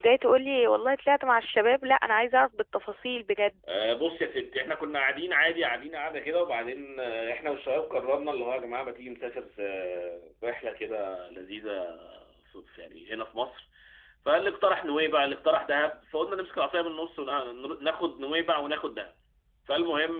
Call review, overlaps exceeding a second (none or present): none